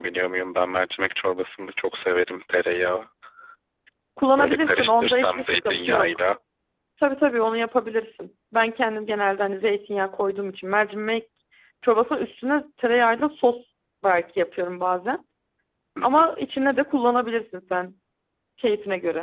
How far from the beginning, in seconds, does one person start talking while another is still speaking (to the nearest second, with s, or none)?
4 s